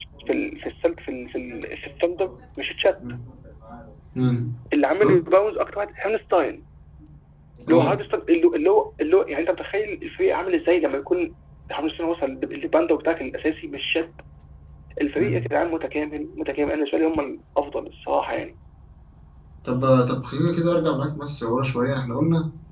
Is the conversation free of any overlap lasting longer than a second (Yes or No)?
Yes